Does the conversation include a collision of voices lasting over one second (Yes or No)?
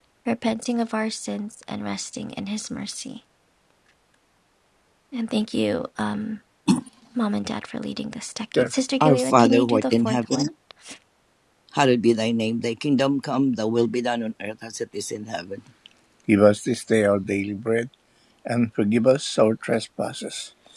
Yes